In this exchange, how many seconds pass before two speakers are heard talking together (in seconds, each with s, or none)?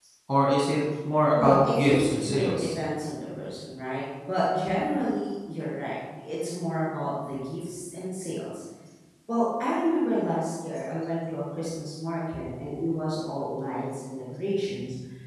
1.3 s